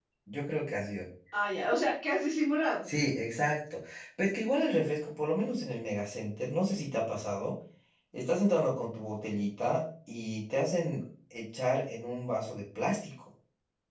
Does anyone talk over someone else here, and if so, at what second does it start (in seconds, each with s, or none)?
none